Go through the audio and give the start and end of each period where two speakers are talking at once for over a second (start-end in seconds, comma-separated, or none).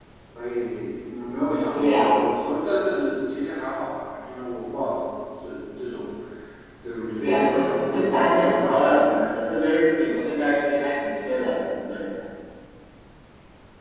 7.2-9.3